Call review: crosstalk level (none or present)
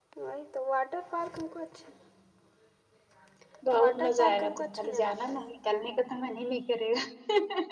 present